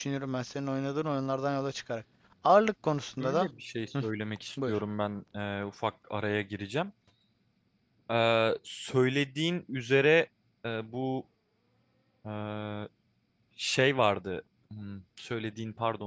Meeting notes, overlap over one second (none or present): none